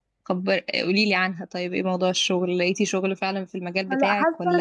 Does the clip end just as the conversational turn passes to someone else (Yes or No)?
Yes